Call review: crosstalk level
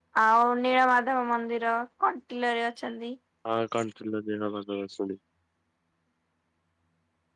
none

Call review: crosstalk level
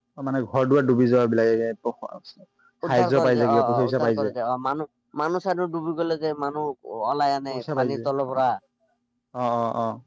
present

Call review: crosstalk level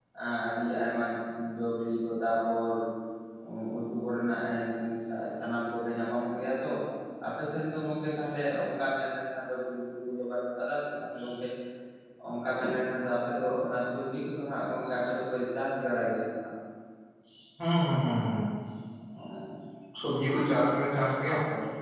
none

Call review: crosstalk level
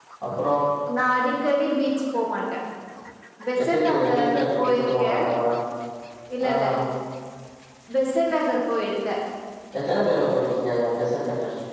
present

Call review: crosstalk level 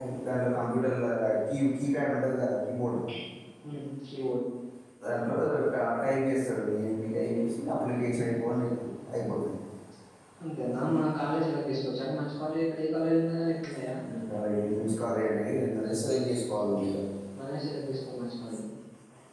none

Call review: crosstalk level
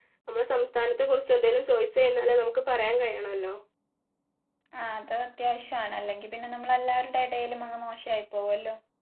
none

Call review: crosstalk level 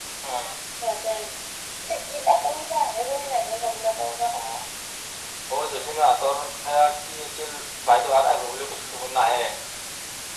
none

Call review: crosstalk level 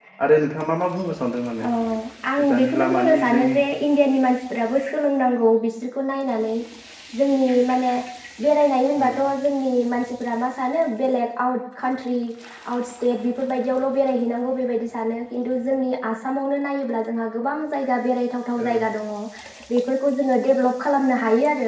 present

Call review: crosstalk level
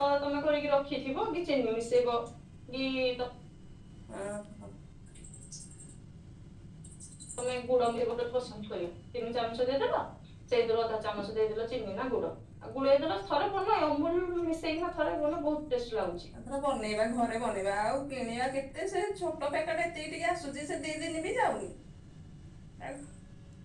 none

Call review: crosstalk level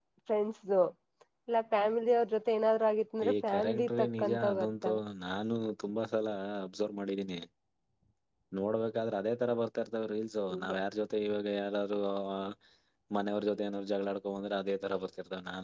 present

